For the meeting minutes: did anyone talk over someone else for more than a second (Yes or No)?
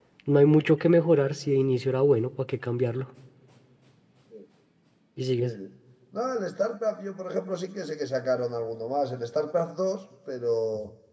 No